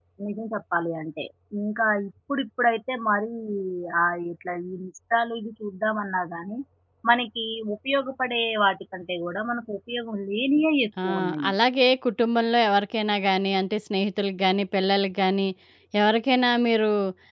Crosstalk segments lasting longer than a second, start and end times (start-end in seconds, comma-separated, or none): none